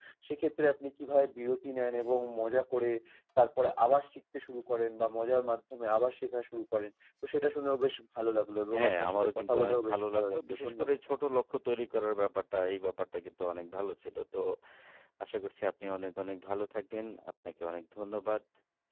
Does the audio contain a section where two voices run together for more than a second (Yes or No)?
Yes